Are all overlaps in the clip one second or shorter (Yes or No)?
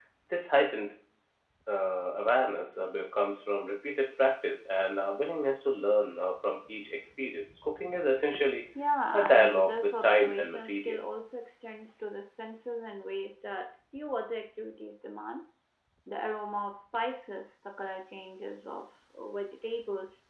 No